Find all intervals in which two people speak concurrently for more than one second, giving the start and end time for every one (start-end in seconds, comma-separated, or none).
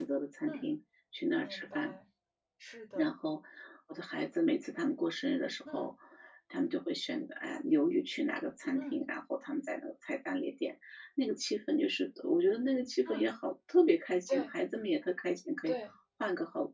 none